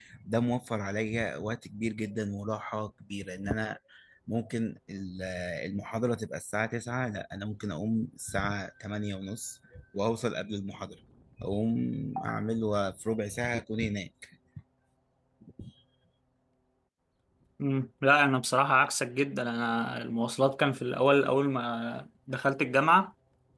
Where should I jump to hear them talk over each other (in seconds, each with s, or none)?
none